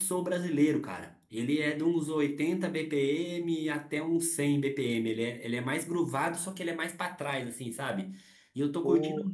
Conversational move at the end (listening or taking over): listening